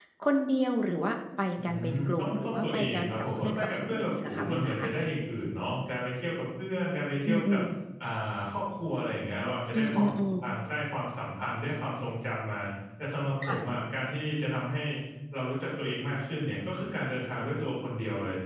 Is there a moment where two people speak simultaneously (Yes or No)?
Yes